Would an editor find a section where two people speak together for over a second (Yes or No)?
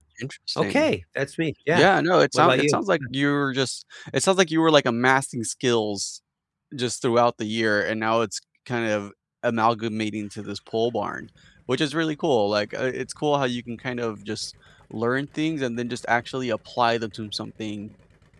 No